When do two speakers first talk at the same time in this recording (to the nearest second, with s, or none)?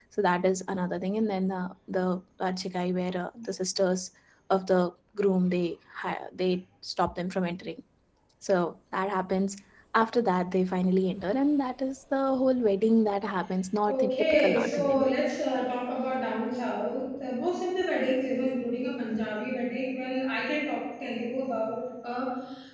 14 s